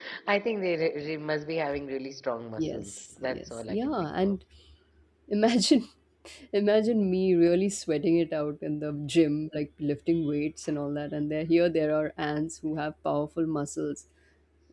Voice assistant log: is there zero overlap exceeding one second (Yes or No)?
No